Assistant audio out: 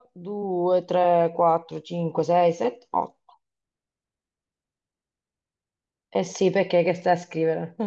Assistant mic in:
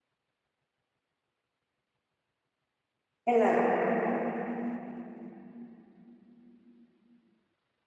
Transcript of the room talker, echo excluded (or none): È la regola.